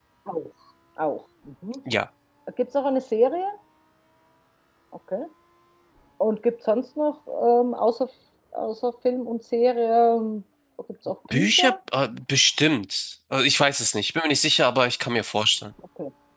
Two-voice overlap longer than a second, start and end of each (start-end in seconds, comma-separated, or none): none